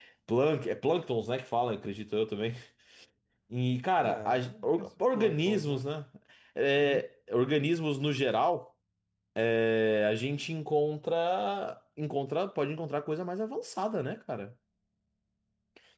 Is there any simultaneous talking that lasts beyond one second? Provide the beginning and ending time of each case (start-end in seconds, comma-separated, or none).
4.0-5.8